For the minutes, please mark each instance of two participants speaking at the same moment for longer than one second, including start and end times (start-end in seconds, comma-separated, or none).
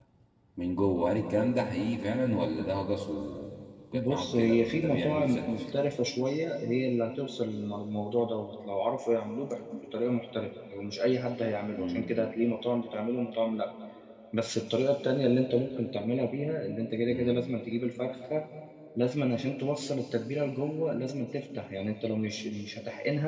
3.9-5.5